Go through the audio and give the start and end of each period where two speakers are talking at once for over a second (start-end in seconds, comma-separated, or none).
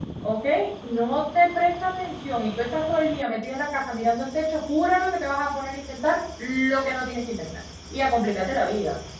none